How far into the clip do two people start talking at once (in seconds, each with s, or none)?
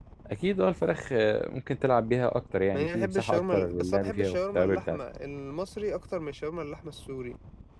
2.7 s